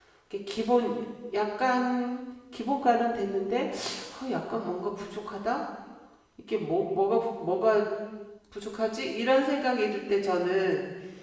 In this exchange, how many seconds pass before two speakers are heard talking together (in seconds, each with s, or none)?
none